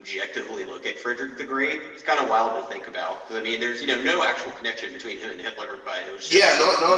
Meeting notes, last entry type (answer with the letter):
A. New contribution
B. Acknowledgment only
A